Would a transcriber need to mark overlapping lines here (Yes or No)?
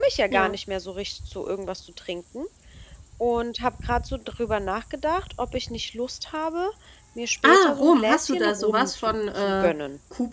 Yes